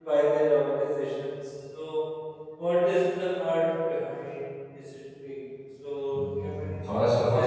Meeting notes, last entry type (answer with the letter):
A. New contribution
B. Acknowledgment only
A